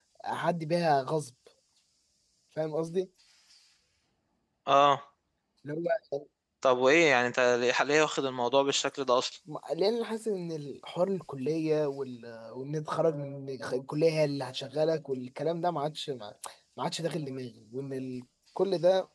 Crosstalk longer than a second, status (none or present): none